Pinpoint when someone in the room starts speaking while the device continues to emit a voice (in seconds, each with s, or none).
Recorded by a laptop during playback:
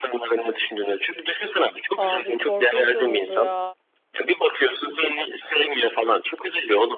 1.9 s